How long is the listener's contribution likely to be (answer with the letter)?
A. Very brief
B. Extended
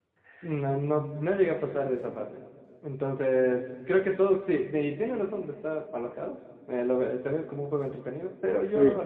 A